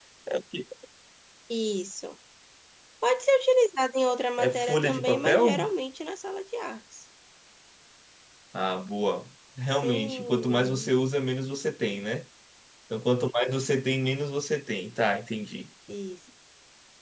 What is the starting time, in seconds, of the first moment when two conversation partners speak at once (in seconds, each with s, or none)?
4.4 s